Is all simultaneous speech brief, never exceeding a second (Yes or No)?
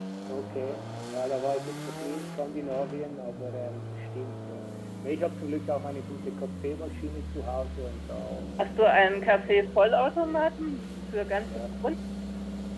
No